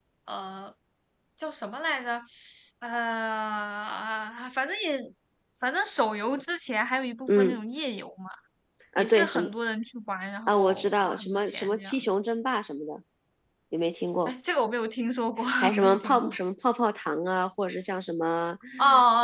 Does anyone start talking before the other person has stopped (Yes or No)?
Yes